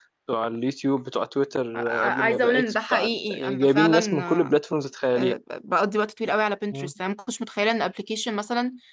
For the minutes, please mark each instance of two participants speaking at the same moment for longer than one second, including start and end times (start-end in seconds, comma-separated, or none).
1.7-4.6